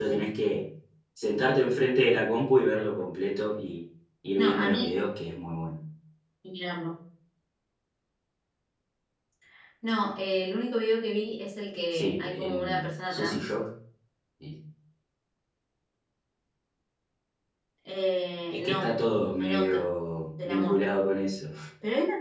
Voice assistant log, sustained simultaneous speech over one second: present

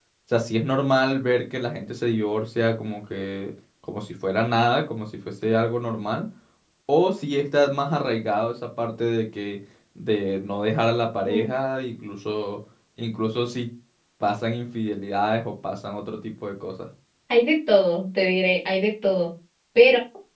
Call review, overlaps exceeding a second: none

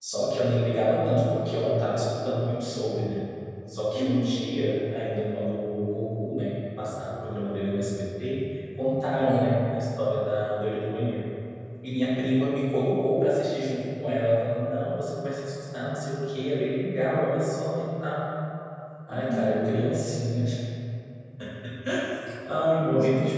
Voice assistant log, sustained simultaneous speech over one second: none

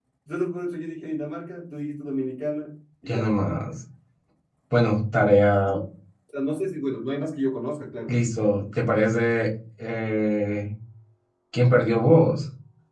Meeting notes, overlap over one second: none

